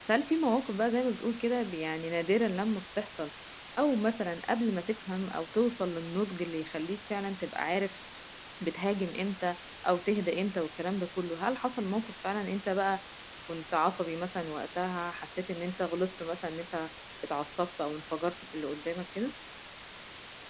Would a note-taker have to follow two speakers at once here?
No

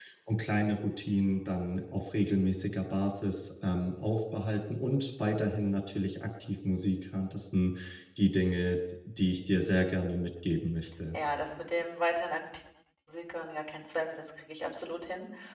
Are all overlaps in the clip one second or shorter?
Yes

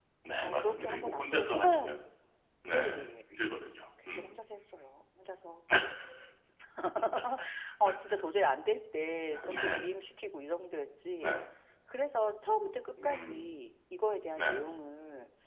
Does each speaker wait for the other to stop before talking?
No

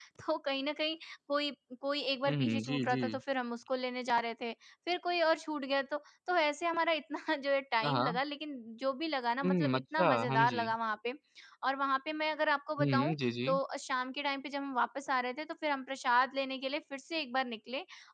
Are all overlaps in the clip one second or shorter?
No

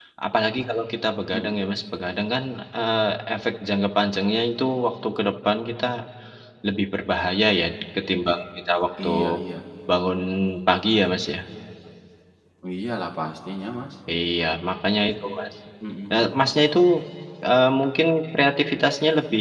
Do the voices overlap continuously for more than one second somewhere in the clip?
No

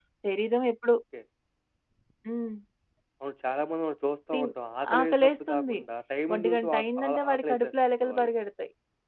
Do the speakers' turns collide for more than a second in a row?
Yes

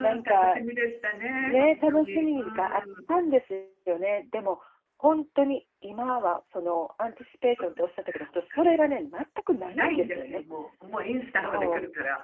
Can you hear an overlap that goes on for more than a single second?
Yes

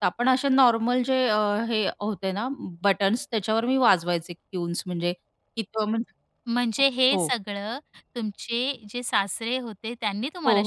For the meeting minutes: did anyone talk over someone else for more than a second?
No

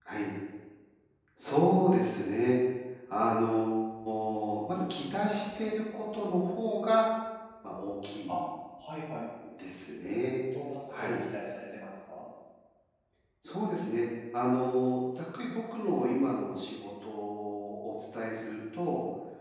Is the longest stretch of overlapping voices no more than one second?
Yes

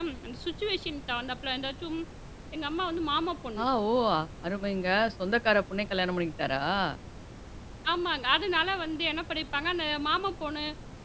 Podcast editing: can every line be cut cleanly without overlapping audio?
Yes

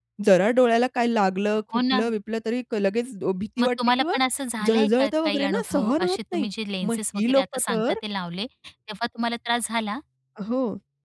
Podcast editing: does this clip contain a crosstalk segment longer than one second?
Yes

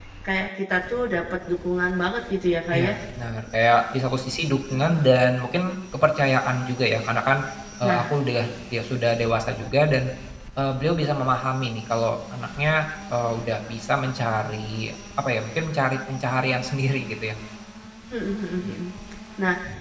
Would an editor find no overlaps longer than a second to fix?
Yes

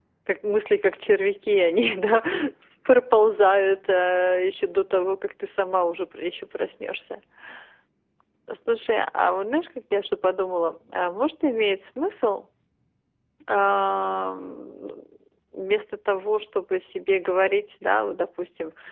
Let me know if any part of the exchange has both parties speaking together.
No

